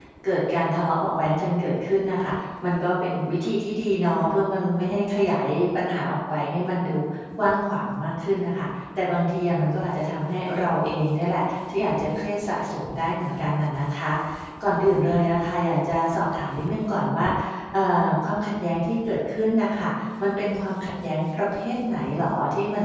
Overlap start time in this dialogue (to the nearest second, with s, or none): none